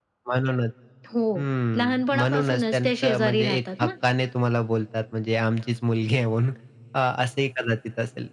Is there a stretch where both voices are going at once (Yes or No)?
Yes